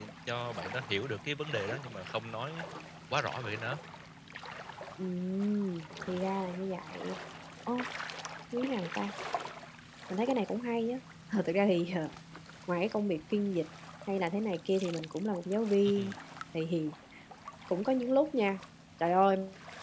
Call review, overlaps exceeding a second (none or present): none